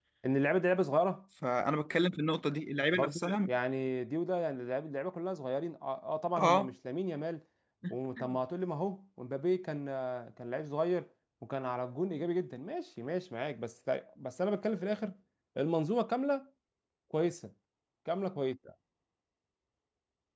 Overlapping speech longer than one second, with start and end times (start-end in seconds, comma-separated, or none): none